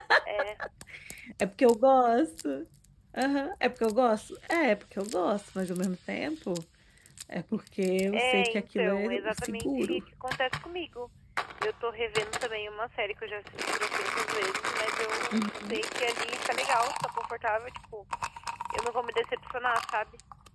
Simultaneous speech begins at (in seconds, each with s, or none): 8.1 s